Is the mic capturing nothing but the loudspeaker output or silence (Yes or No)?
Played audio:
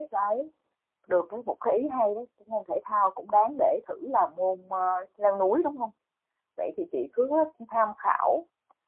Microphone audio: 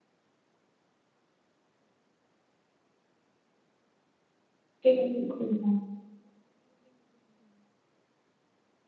No